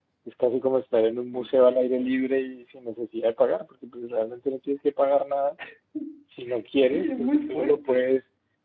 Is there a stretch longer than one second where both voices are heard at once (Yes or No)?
Yes